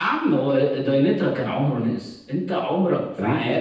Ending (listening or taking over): taking over